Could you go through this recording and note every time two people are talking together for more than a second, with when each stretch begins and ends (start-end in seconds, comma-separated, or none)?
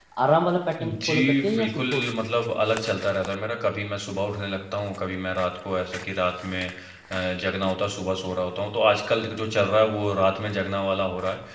0.8-2.1